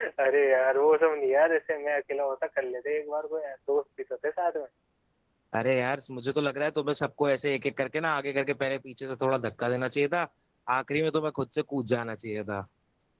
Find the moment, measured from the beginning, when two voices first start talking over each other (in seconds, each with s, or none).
none